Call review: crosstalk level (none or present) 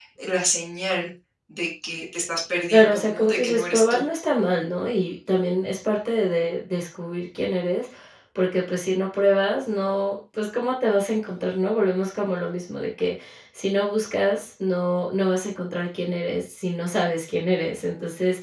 present